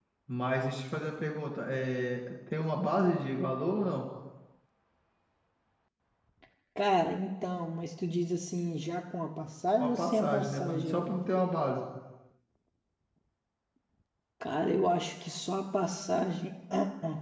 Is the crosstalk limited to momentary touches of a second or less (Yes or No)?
No